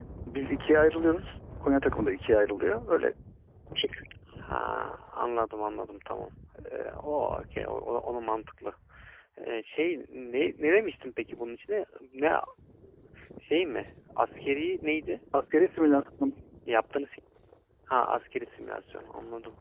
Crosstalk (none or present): none